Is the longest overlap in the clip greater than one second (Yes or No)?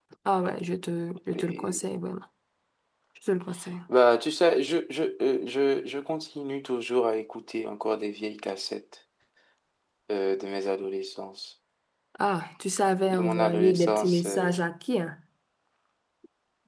Yes